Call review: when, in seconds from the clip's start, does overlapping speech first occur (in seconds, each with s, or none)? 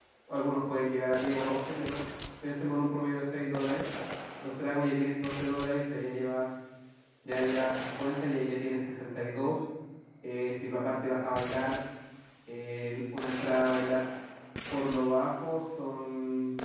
none